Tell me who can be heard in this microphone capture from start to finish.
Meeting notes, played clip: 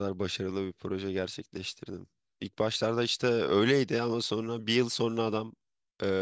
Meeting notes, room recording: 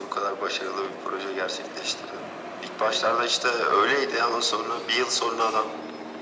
echo only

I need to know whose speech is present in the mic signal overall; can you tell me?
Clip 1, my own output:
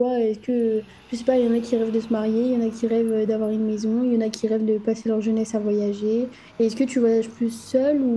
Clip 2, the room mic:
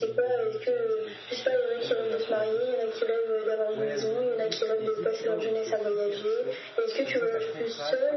both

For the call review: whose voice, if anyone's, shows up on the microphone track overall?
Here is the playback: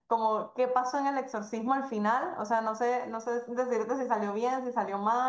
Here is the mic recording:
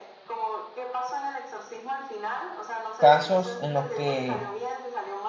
both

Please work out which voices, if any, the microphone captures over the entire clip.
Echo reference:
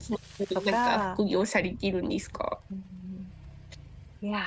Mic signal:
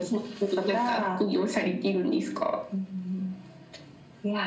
echo only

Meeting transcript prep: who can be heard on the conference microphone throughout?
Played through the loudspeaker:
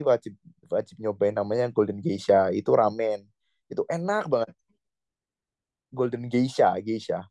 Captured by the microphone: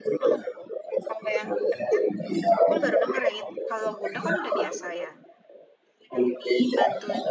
both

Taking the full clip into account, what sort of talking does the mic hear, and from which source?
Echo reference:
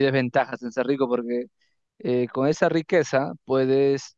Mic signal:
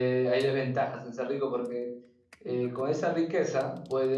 echo only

